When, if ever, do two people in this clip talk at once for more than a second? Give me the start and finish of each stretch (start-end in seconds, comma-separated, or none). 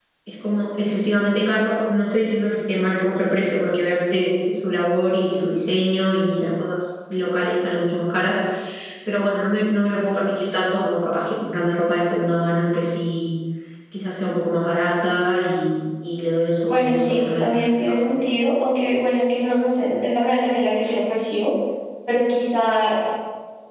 16.7-18.1